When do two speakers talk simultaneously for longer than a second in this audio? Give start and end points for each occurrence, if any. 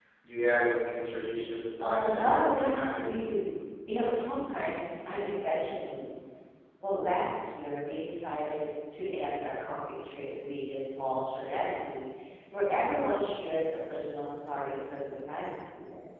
1.8-3.1

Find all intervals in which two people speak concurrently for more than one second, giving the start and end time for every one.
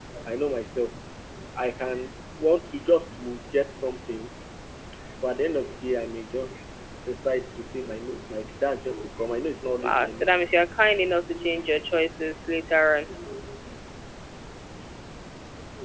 none

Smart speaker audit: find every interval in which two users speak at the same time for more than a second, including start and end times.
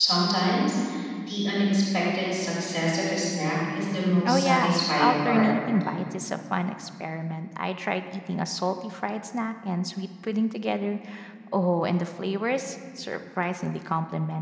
4.2-5.5

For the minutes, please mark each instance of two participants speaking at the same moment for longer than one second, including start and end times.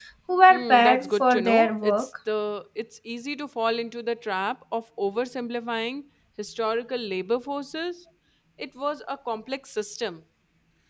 0.5-2.1

